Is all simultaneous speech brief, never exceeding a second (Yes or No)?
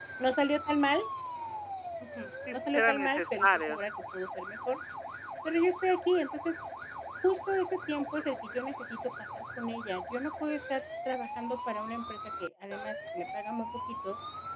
No